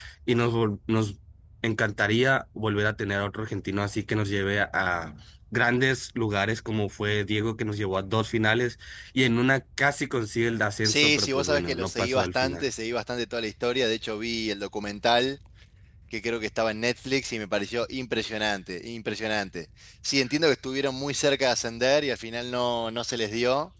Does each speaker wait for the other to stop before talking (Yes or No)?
No